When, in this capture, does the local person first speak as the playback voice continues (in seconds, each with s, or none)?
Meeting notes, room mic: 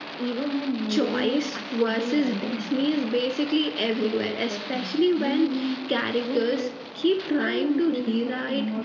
0.9 s